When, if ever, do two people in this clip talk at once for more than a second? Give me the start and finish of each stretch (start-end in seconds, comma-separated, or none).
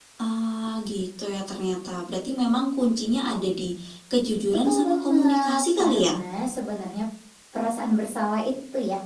4.6-6.1